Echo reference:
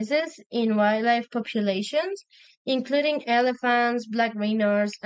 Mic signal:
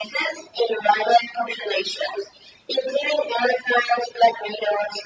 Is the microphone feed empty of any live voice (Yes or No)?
Yes